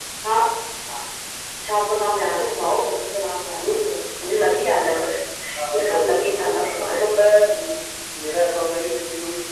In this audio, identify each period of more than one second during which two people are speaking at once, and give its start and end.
5.7-7.2

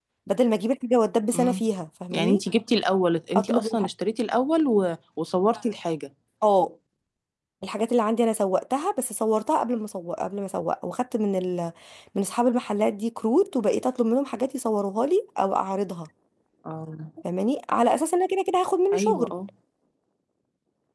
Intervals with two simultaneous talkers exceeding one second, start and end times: none

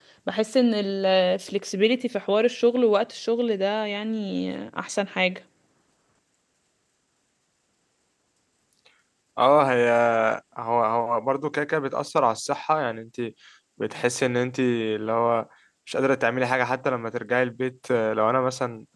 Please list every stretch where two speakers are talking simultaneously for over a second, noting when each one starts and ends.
none

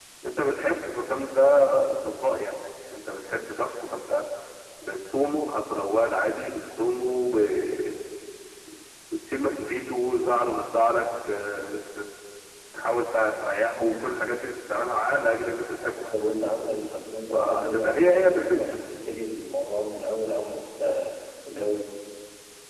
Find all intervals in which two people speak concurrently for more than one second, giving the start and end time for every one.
17.3-18.6

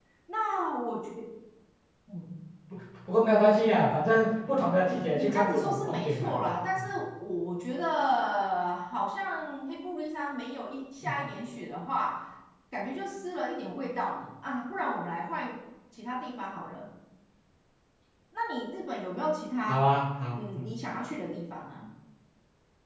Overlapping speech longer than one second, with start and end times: 5.1-6.4

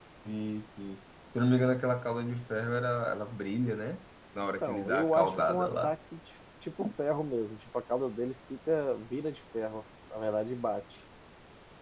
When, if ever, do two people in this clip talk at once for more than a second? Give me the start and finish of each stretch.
4.7-5.9

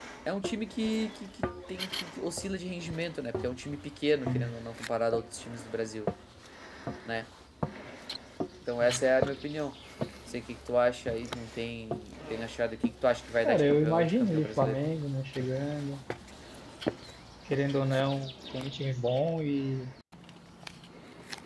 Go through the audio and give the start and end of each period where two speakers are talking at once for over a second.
13.4-14.8

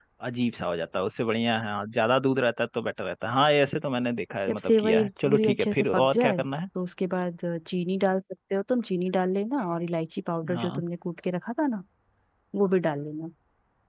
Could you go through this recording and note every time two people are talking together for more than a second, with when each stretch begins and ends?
4.5-6.3

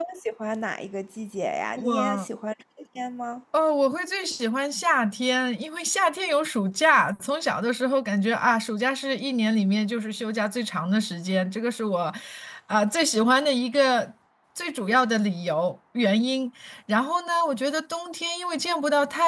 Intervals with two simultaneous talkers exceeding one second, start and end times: none

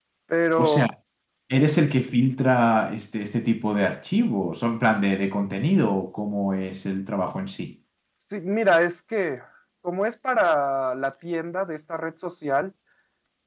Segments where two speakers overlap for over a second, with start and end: none

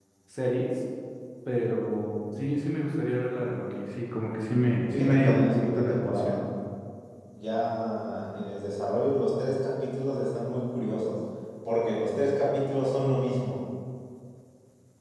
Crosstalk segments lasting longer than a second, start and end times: 4.9-6.4

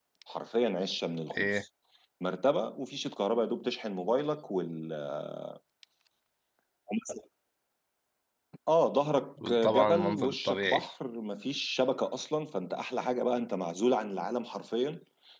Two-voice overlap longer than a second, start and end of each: 9.6-10.8

